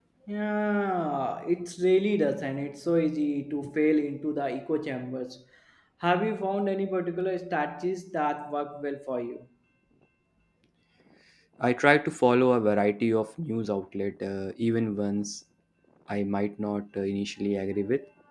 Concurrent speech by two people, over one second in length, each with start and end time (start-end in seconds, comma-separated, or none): none